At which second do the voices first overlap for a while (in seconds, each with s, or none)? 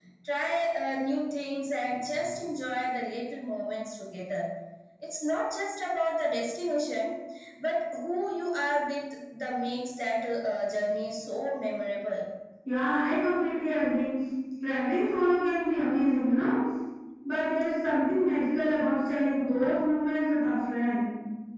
none